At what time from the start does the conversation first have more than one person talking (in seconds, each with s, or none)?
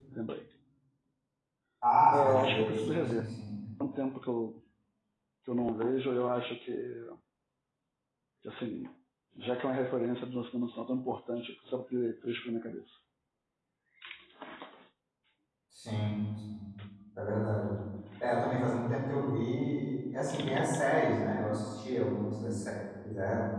2.1 s